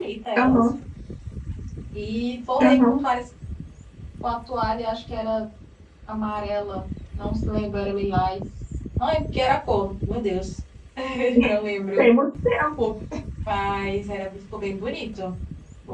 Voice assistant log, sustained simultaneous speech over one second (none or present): none